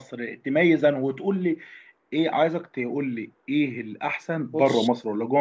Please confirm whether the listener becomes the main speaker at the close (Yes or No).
No